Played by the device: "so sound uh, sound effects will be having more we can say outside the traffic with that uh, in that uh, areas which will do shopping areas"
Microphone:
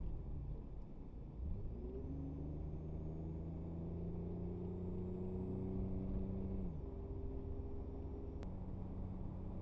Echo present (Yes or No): No